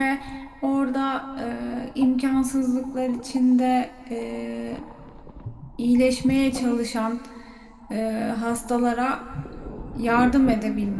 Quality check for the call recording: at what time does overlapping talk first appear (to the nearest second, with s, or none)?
none